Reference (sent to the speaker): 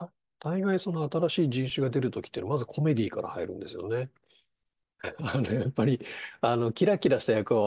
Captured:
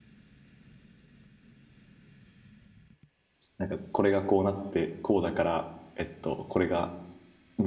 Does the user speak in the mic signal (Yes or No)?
Yes